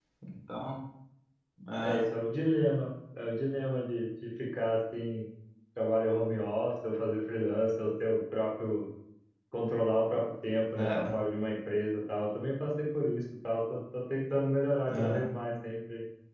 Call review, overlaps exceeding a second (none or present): none